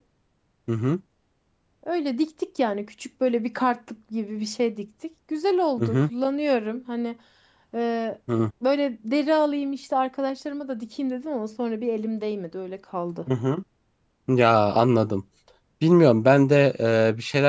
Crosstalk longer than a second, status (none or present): none